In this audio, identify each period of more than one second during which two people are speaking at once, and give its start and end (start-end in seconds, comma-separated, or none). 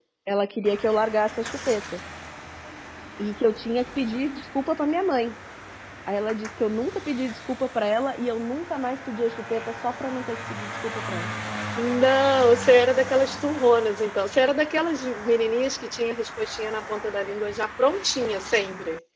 none